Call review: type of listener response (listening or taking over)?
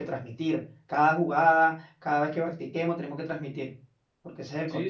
taking over